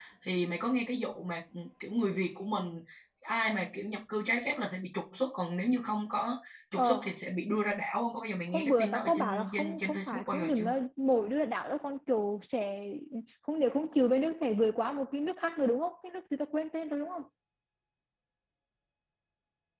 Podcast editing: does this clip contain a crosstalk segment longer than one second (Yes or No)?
Yes